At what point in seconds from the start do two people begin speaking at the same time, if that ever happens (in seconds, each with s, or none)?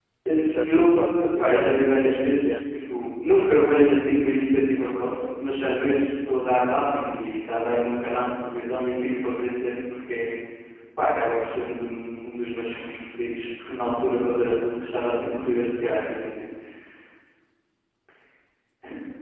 0.6 s